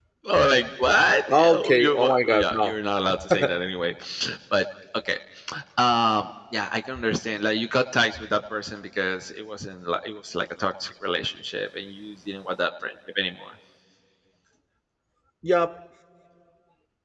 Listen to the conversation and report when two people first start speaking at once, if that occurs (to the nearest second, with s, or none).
1 s